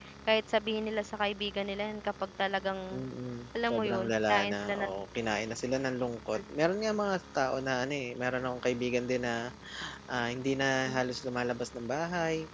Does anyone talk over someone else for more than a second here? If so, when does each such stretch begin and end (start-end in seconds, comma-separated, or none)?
3.7-4.9